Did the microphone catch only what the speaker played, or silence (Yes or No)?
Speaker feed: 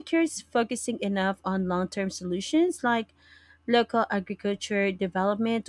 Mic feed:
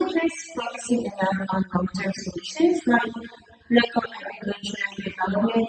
Yes